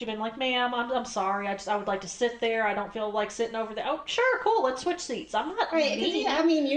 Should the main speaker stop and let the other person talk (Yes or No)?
Yes